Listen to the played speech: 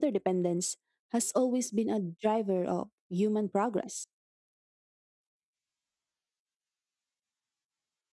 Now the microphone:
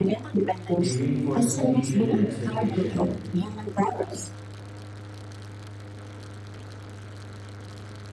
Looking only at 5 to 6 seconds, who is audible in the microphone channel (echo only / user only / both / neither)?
neither